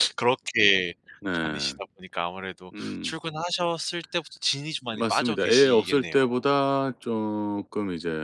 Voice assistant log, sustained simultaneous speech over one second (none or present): present